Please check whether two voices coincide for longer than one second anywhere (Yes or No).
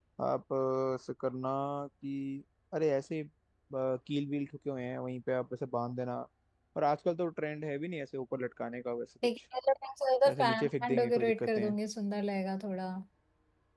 Yes